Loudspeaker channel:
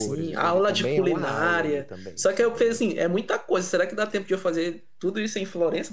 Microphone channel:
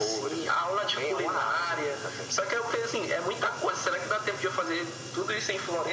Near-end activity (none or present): none